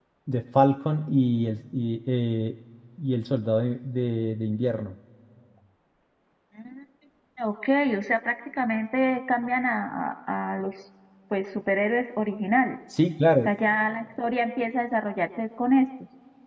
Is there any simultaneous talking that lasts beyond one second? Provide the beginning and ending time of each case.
none

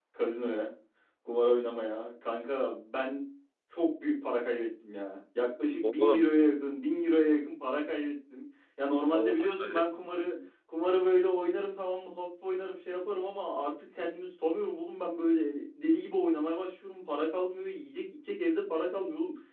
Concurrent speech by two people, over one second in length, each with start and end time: 9.1-10.3

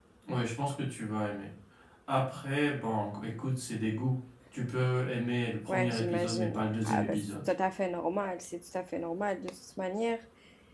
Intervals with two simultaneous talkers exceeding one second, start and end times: 5.7-7.3

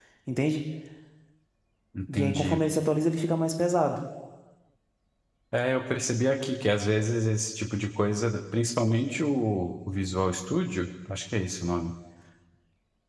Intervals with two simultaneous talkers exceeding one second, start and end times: none

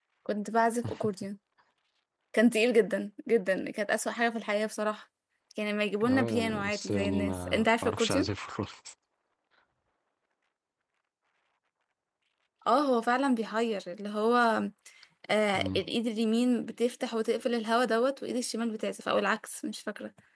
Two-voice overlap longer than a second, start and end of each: 6.1-8.3

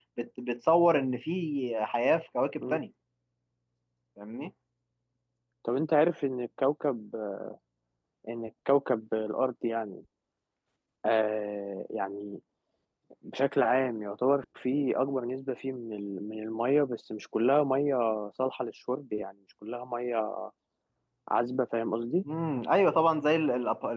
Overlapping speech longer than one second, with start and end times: none

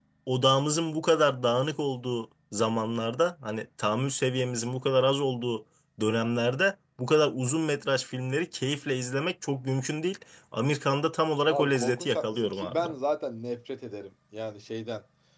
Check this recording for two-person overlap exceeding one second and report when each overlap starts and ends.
11.5-12.9

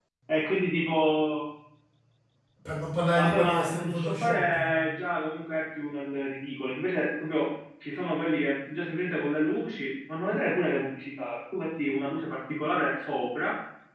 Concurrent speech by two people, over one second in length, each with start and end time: 3.1-4.7

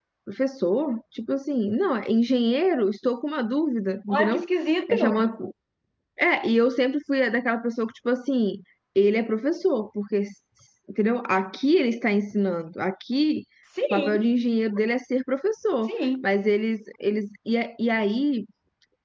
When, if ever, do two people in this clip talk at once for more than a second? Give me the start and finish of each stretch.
none

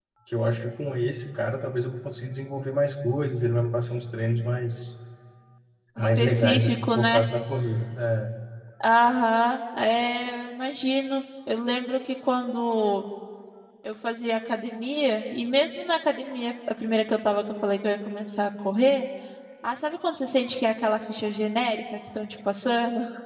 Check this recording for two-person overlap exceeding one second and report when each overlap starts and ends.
6.0-7.2

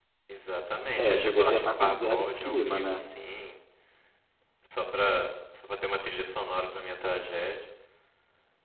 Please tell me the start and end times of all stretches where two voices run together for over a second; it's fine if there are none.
0.9-3.0

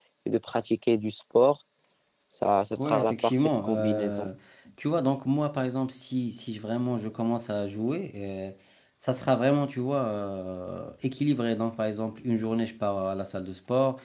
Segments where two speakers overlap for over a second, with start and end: 2.8-4.3

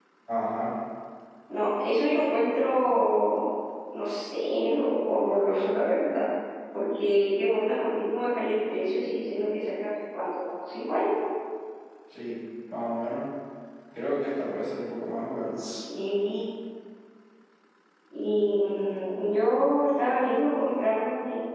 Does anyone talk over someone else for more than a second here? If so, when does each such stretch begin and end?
none

